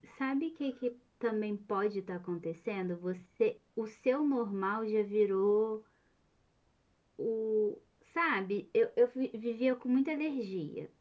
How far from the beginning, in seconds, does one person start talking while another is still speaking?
none

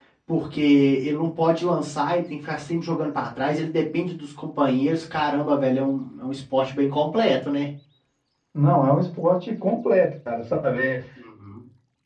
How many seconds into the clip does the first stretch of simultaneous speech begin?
none

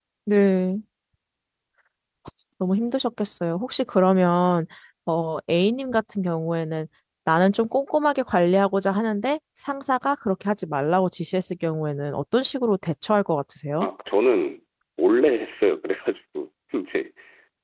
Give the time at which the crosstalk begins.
none

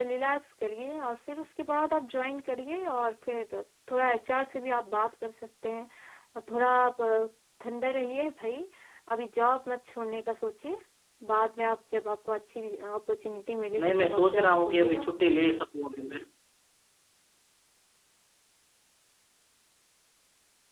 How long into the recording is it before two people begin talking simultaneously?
13.8 s

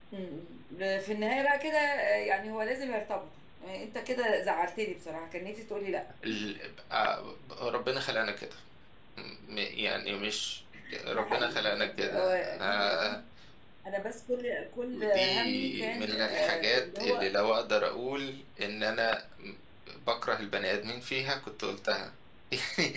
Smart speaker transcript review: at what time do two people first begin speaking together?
11.1 s

